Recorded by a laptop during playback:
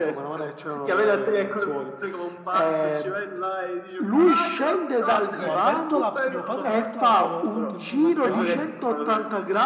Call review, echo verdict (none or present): present